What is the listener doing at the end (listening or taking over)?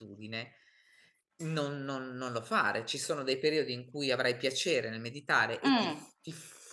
listening